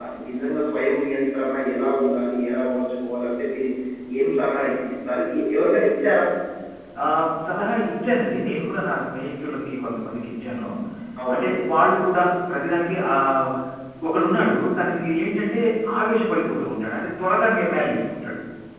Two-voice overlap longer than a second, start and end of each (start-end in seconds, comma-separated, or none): none